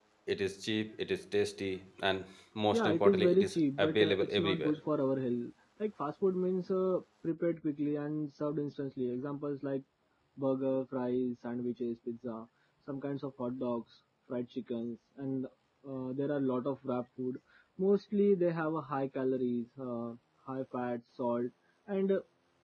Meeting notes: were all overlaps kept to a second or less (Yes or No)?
No